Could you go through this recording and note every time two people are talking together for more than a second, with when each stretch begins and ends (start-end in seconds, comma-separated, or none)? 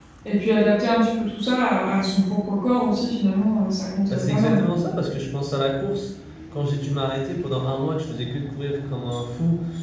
none